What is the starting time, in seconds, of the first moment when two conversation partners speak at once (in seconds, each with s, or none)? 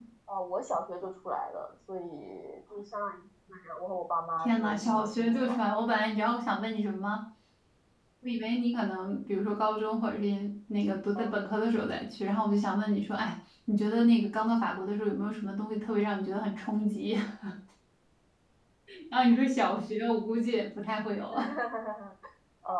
4.4 s